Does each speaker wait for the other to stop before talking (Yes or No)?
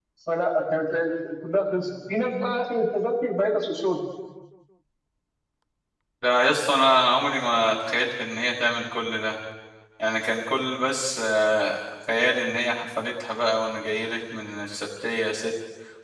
Yes